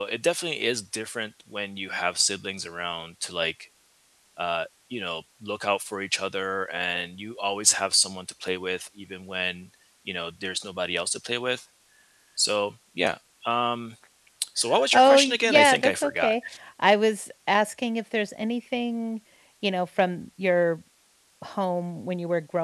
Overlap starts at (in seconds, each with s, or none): 14.9 s